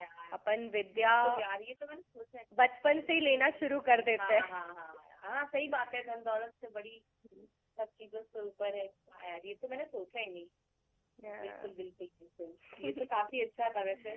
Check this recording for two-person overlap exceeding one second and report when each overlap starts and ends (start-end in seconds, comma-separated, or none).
none